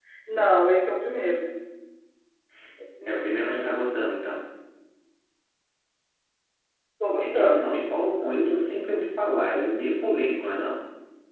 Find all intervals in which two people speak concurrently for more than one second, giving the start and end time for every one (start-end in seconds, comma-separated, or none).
7.2-8.5